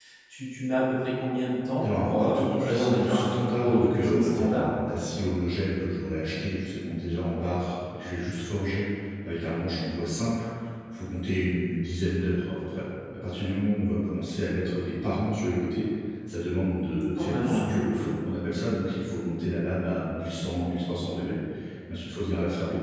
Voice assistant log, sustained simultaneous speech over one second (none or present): present